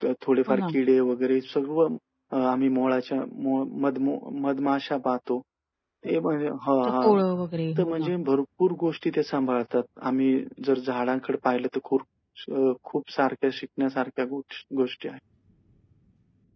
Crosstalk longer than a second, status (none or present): none